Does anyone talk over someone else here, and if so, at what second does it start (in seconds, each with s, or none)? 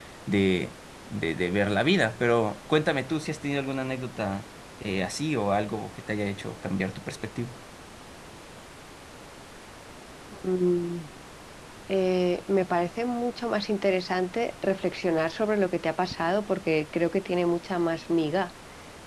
none